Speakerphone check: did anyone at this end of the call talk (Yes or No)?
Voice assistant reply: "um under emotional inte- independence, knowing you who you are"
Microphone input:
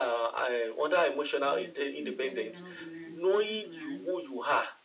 Yes